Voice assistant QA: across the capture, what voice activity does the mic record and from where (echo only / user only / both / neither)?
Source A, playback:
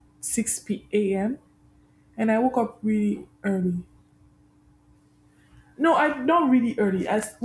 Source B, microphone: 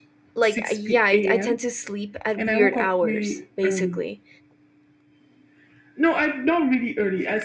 both